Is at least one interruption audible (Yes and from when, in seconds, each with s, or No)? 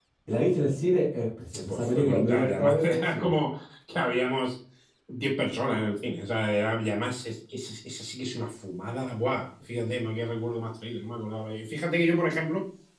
Yes, from 1.5 s